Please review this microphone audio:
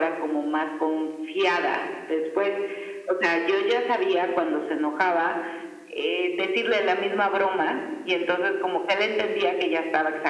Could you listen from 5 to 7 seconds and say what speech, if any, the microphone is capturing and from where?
echo only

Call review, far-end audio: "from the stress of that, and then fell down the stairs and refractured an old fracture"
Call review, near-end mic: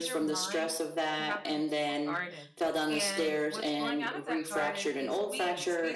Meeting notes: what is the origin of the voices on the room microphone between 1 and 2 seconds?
both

